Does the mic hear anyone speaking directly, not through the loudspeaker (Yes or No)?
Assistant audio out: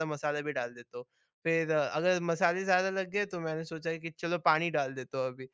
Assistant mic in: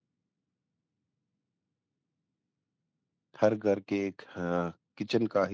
Yes